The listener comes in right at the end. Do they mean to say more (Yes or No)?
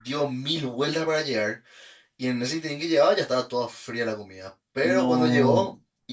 No